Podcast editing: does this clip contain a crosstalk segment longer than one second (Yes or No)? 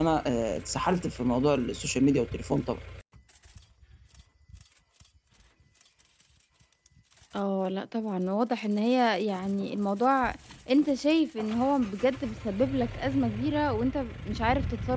No